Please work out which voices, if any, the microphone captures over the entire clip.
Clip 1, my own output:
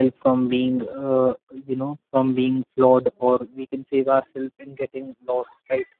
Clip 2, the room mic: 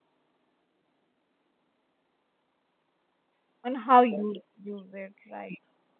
user only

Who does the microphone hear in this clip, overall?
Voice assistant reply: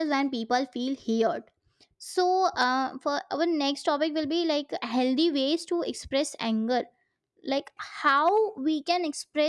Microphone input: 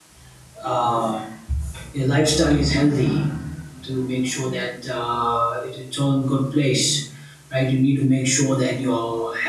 user only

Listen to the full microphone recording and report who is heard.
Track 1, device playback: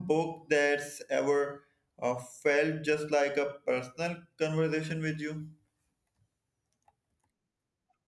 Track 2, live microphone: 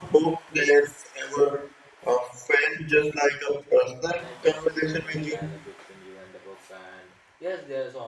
both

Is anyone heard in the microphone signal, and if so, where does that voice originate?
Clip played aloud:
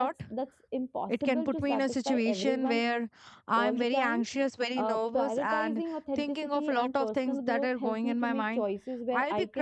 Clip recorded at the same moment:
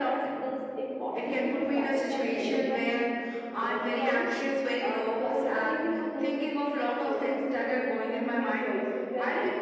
echo only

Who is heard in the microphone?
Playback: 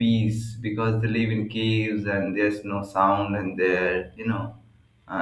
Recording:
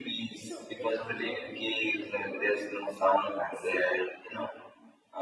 both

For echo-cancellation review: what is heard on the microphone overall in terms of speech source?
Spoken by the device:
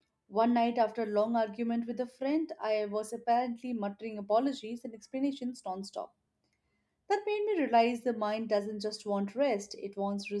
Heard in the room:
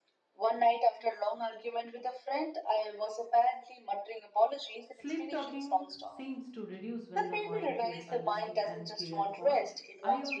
both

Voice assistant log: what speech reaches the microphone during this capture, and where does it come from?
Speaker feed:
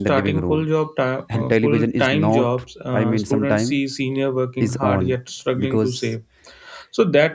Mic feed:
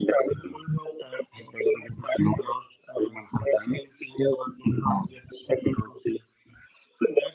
echo only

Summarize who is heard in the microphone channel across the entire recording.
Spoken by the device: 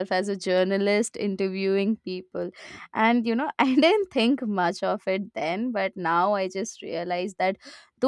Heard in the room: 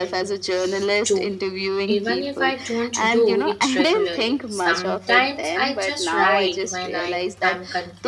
both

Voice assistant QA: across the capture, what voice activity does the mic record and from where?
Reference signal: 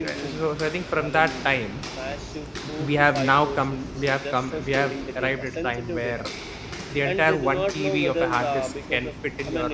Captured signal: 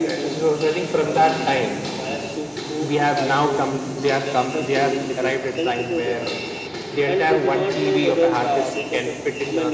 echo only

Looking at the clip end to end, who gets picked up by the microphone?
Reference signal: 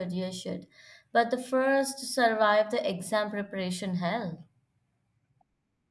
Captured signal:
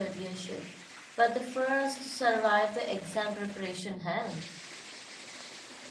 echo only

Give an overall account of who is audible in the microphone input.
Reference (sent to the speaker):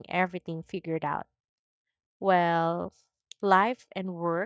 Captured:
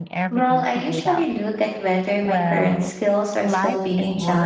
both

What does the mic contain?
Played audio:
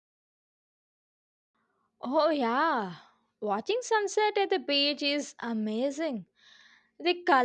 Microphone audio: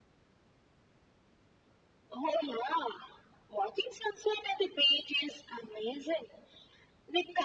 echo only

